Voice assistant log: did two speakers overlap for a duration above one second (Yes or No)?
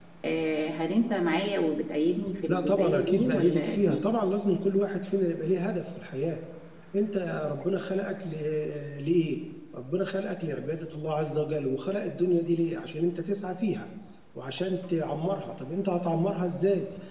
Yes